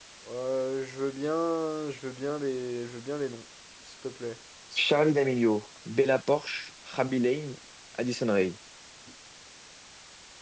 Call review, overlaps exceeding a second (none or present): none